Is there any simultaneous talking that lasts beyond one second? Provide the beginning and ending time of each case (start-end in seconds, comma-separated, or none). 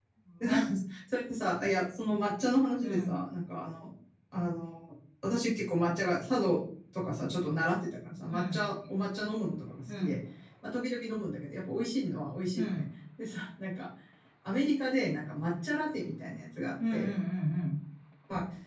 none